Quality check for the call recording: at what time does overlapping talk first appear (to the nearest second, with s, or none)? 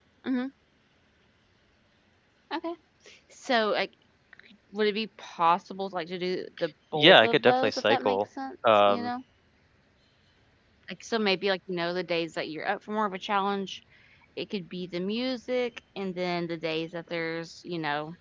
7 s